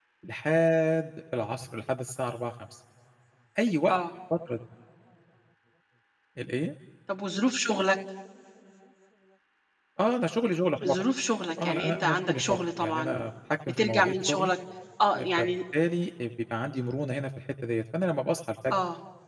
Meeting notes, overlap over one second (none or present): present